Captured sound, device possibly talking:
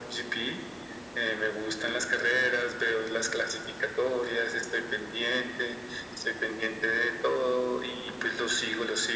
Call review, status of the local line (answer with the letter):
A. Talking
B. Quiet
B